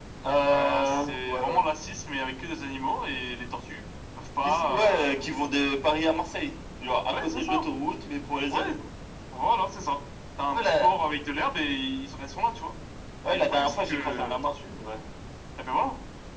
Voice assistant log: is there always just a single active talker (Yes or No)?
No